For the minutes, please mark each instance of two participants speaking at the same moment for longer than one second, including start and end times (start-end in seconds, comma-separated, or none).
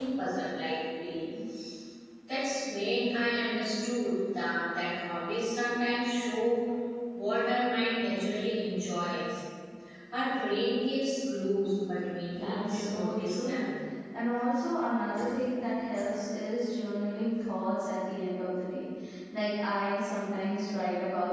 12.4-13.7